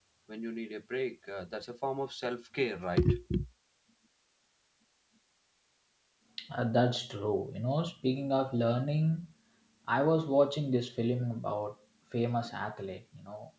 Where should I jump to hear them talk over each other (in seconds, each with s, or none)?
none